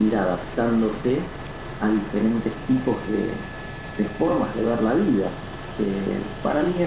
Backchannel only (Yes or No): Yes